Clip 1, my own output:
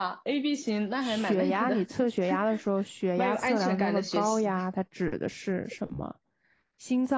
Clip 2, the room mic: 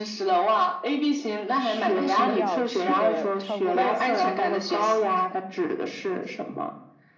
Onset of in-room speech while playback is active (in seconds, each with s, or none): 2.0 s